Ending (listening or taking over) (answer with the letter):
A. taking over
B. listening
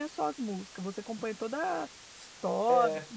A